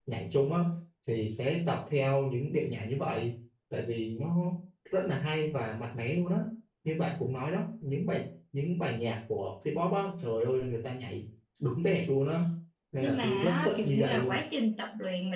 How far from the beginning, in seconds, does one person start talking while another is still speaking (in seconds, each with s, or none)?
13.0 s